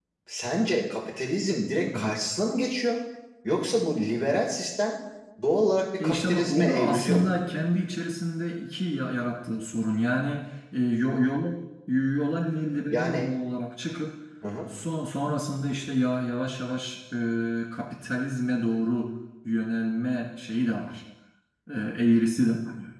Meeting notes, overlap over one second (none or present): present